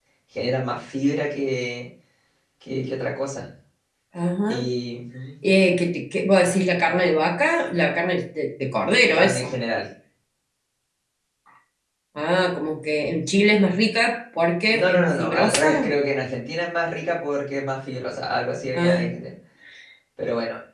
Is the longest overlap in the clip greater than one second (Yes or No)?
Yes